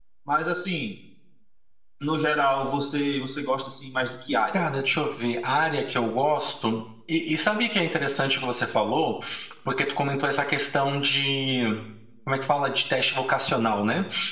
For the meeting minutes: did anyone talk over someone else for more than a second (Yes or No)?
No